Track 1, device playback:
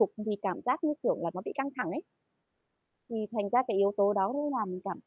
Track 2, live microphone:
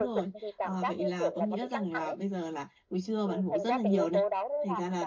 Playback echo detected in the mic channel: Yes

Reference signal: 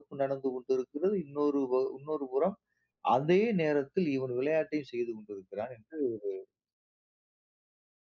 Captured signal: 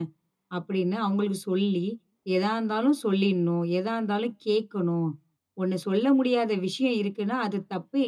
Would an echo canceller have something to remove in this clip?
No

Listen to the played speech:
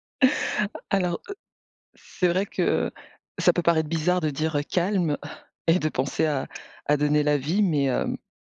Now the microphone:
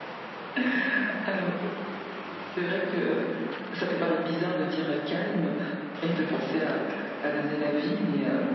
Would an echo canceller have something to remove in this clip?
Yes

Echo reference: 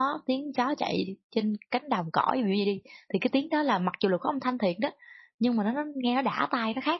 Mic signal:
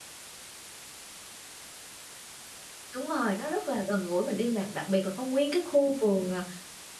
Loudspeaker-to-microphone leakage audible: No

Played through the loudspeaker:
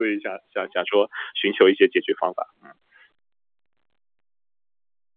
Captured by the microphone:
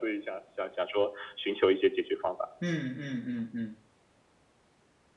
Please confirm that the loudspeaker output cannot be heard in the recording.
No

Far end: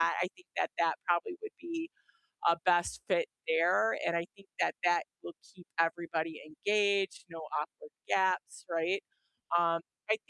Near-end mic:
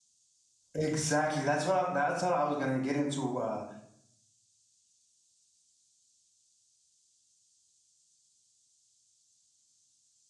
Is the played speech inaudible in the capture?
Yes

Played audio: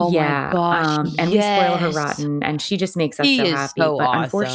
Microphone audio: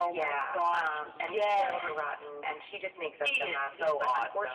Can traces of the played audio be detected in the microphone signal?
Yes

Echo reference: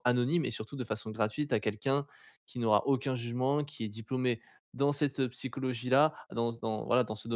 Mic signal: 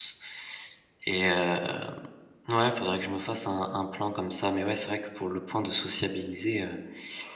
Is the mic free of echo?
Yes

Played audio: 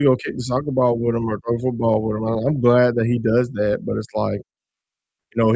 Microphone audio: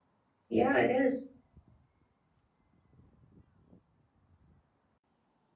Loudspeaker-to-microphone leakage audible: No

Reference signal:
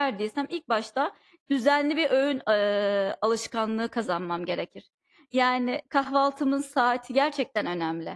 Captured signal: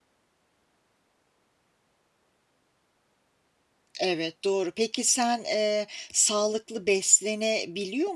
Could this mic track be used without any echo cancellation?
Yes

